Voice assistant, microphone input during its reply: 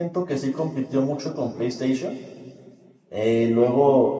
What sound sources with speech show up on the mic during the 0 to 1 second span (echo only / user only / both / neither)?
user only